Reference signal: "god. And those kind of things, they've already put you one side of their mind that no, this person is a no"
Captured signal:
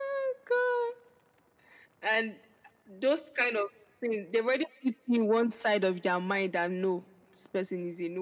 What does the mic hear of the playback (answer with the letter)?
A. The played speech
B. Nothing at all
A